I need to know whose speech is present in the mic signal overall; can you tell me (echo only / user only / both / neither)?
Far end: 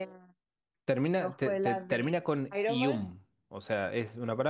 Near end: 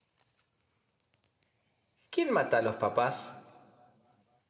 user only